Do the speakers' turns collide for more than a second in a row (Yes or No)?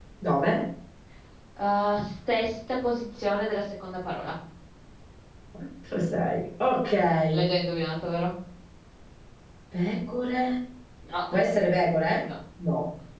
No